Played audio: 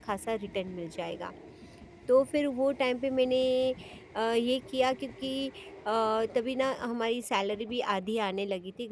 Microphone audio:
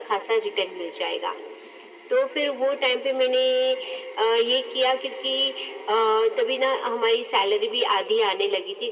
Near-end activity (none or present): none